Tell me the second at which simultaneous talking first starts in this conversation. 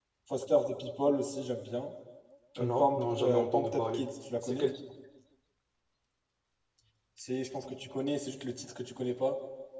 2.6 s

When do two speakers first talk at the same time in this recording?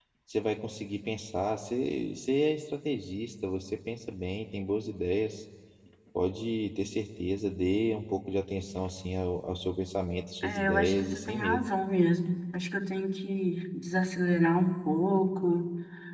10.4 s

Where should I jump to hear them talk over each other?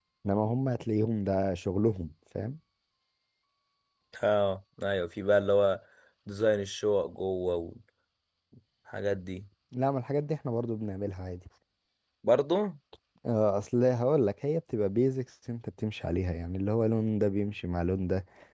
none

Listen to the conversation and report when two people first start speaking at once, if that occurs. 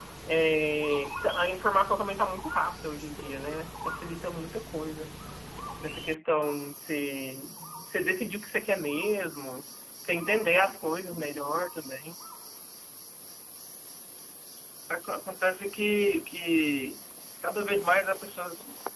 none

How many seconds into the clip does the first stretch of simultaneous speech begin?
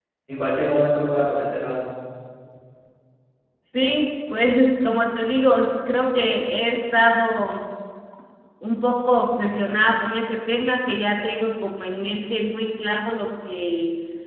none

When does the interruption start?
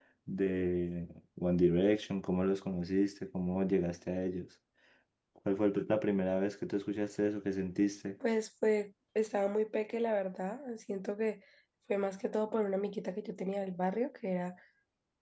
none

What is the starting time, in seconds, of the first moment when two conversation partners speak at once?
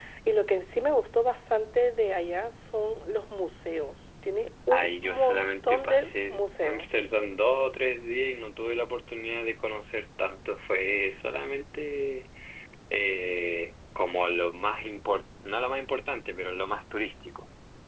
4.7 s

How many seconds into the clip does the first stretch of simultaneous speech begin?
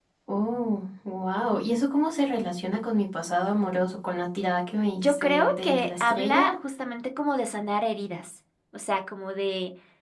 5.0 s

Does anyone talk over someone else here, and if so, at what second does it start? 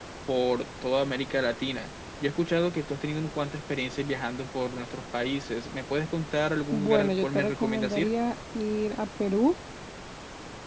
6.7 s

